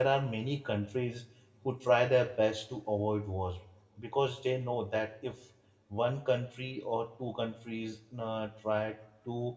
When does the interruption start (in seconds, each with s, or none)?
none